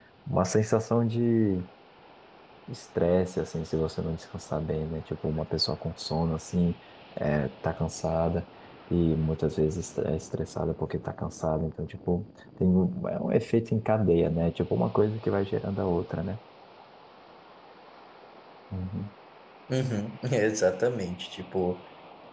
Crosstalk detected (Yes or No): No